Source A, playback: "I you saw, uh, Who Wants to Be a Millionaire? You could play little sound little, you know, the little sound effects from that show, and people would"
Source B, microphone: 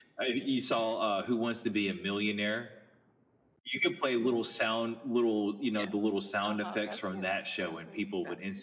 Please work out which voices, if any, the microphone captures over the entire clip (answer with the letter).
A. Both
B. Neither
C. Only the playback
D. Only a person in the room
A